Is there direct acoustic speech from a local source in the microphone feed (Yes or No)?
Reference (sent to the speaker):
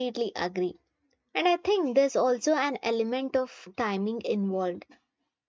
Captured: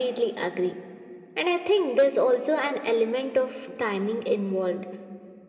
No